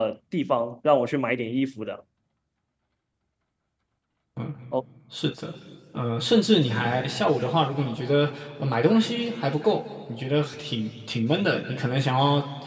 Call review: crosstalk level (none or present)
none